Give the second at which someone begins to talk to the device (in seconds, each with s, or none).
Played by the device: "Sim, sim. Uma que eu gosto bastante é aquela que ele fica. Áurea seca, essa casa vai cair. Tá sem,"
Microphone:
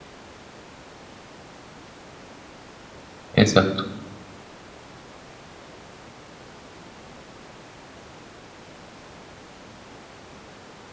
3.3 s